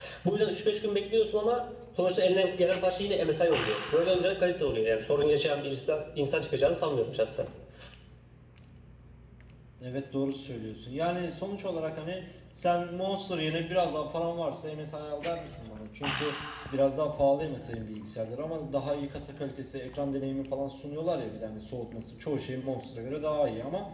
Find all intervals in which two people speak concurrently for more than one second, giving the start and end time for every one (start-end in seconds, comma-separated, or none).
none